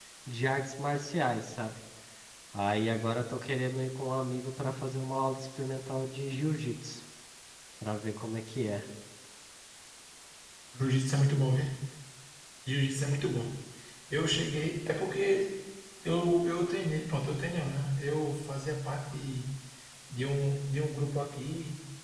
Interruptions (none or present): none